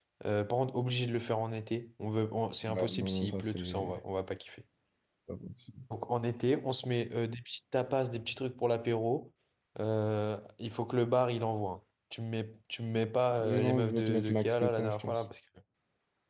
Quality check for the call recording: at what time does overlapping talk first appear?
2.7 s

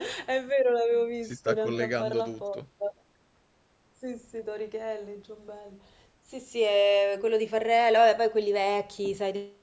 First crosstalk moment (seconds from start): 1.2 s

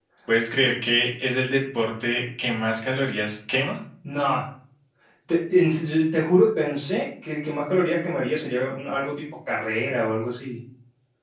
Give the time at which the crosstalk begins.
none

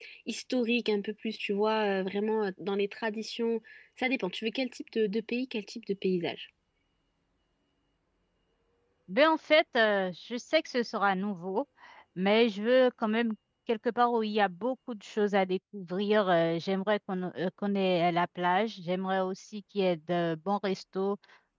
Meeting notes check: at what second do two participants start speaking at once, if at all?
none

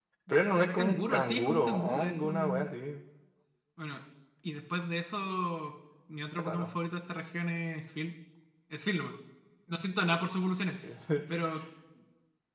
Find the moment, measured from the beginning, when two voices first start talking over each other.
0.8 s

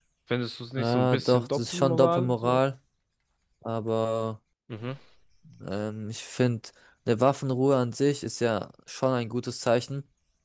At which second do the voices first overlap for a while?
0.8 s

